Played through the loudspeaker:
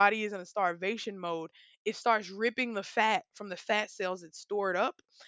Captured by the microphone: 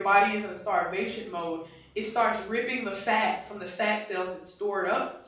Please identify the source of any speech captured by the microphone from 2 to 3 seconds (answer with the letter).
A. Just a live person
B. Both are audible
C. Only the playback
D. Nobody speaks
C